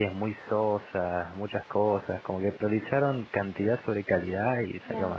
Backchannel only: No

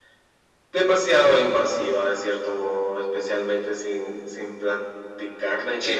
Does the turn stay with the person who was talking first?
Yes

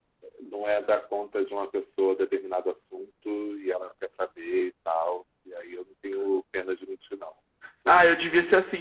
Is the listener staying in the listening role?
No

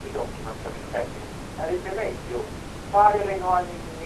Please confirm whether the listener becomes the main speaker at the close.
No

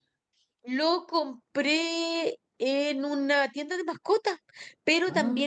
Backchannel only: Yes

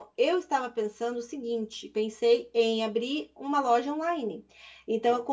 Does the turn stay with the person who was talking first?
Yes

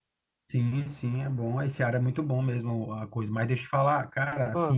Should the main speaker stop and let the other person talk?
No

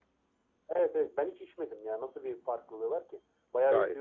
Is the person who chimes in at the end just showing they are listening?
No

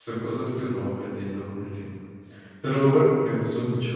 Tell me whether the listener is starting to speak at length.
No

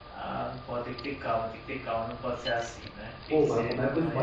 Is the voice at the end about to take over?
Yes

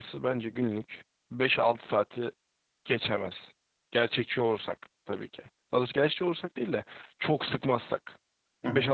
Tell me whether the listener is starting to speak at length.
Yes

